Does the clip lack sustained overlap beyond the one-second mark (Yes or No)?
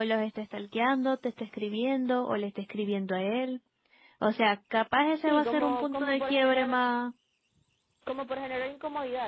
No